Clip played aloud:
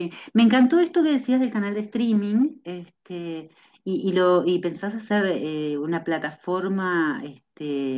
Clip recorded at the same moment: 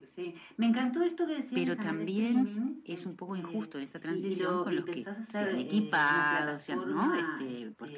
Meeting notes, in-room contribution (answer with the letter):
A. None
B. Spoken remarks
B